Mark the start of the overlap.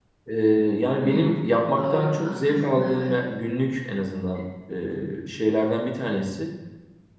1 s

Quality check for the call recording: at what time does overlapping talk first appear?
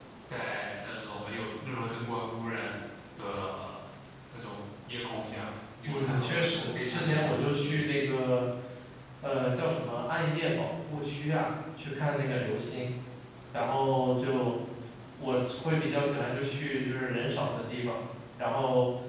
6 s

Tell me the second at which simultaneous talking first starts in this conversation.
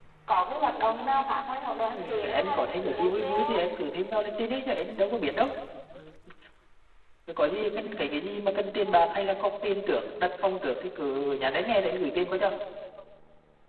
2 s

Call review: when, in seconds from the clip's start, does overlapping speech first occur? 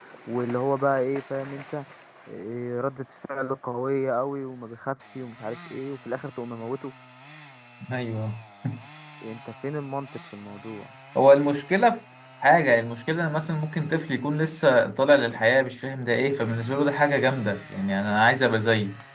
none

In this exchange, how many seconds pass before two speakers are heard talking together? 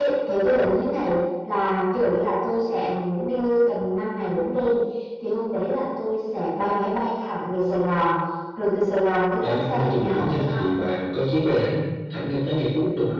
9 s

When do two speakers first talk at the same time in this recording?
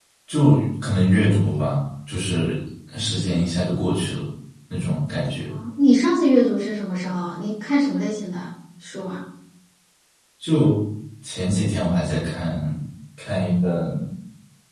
none

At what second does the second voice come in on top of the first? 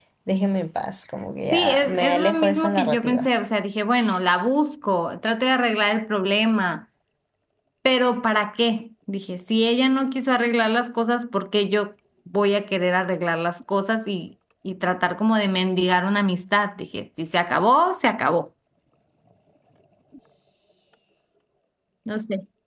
2 s

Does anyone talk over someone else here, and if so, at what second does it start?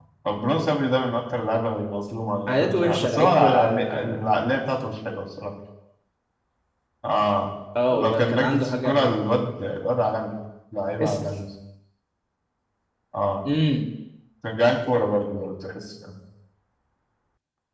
2 s

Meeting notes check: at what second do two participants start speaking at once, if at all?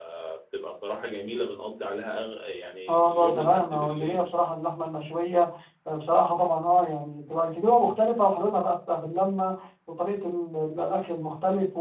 3 s

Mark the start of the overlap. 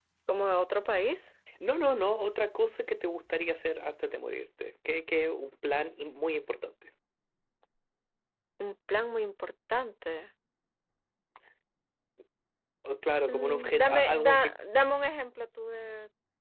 13 s

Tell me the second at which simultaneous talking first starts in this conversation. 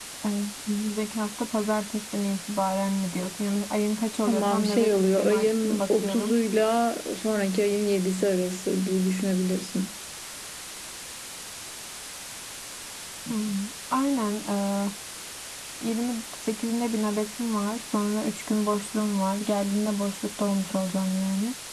4 s

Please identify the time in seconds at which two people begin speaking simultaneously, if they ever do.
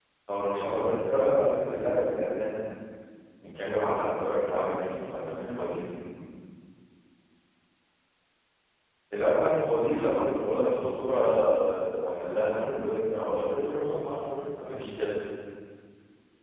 4 s

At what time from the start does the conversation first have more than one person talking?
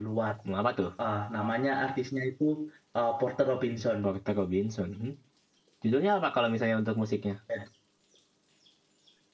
none

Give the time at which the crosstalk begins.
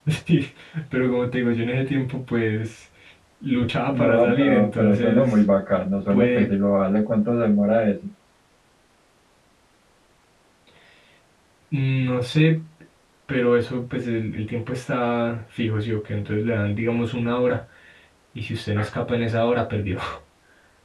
4 s

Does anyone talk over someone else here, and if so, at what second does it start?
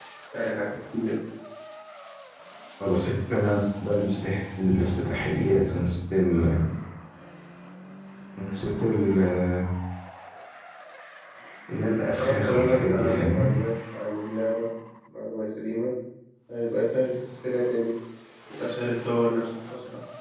12 s

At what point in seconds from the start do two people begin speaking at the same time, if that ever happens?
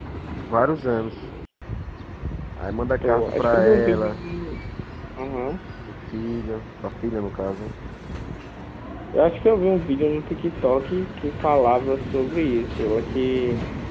3 s

